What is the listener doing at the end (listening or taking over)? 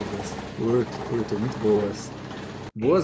listening